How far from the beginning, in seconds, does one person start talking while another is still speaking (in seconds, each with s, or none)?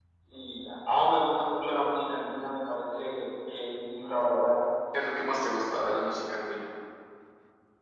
none